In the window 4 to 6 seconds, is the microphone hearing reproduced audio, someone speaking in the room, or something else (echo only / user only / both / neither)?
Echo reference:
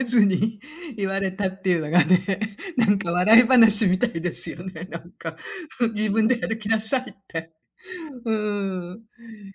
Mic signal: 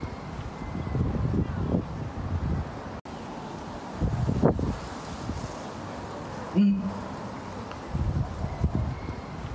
neither